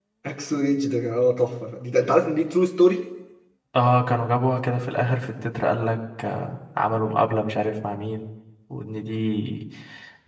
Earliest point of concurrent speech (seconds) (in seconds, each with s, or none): none